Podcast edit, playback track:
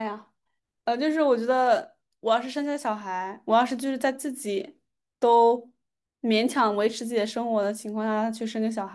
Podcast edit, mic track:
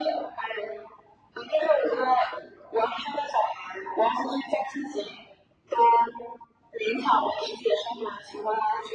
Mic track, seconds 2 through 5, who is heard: echo only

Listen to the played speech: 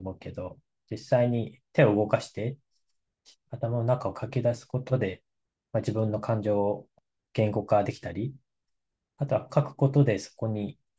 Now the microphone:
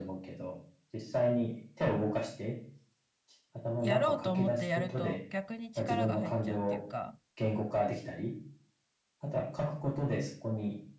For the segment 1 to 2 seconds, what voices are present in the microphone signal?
echo only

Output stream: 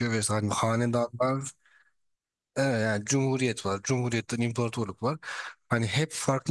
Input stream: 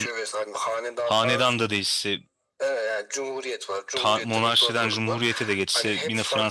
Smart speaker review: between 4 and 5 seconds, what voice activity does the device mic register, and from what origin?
both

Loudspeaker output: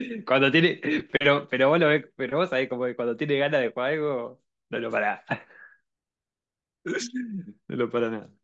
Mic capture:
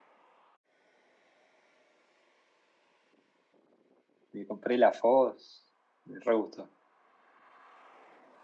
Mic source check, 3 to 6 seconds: user only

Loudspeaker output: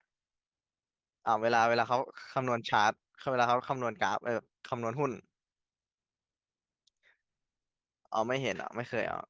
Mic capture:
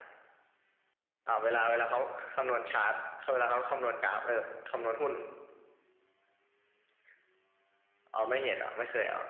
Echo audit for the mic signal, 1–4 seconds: echo only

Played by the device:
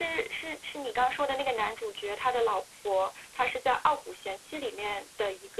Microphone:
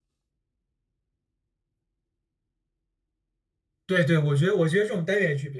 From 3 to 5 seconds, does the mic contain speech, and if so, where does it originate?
user only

